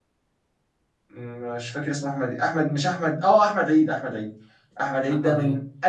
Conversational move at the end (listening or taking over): listening